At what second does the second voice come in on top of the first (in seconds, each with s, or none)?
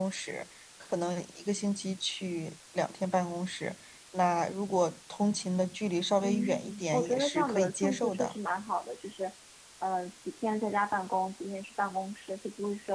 6.2 s